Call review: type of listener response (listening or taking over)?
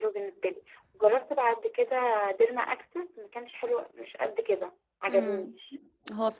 taking over